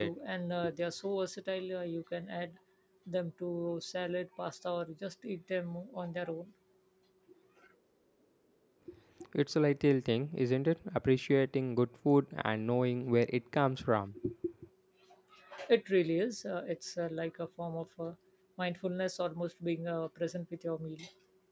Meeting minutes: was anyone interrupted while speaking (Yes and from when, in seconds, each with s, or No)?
No